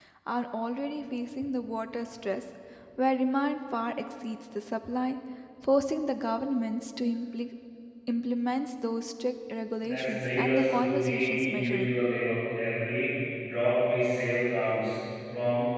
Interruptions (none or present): present